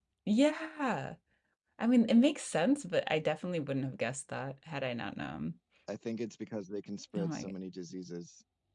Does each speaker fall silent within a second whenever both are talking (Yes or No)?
Yes